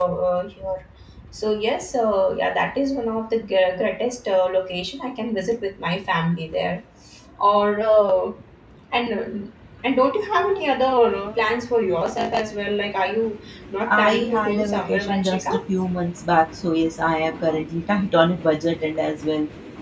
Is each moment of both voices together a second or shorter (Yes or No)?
No